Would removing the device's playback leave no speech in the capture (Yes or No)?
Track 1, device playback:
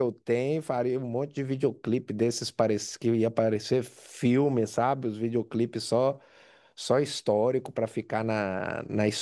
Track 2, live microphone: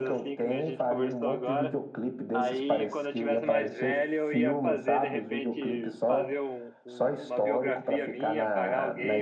No